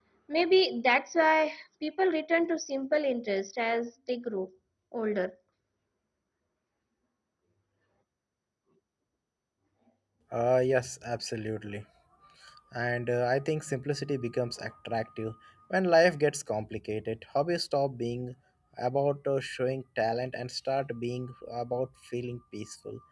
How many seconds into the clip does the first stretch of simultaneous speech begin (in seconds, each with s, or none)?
none